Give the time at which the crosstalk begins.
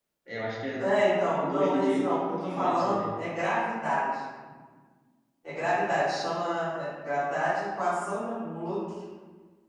1.4 s

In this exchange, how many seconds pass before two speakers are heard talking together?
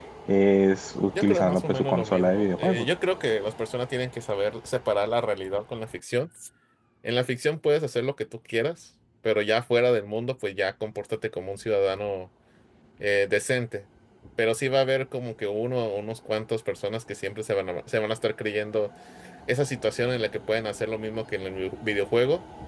1.2 s

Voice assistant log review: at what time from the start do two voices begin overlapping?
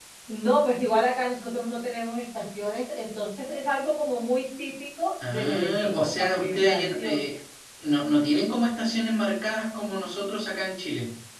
5.2 s

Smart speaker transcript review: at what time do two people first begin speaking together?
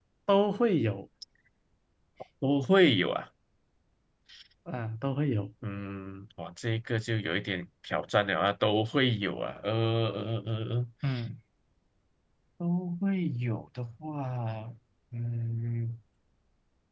none

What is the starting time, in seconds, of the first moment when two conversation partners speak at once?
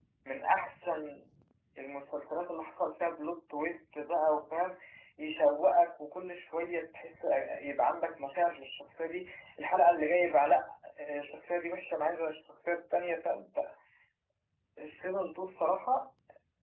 none

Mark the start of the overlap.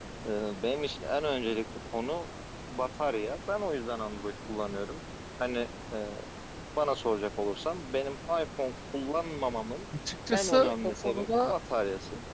10.3 s

